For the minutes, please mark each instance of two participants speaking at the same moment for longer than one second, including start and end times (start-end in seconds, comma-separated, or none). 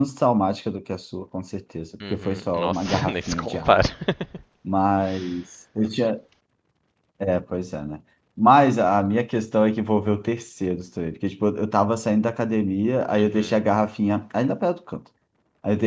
2.1-3.7